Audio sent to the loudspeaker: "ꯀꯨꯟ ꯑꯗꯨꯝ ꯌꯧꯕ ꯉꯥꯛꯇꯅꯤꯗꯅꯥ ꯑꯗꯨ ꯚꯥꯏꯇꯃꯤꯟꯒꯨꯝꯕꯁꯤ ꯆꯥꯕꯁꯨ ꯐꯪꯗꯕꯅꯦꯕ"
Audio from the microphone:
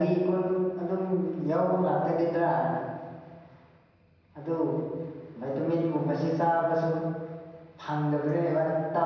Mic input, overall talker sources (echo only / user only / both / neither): echo only